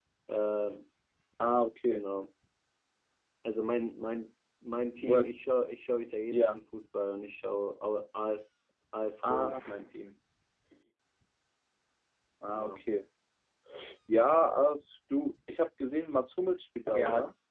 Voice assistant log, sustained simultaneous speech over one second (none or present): none